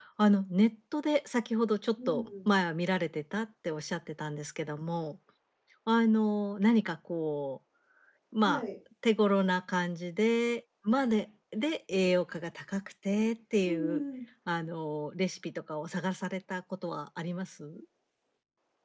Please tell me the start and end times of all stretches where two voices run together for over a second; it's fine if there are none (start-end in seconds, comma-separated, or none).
none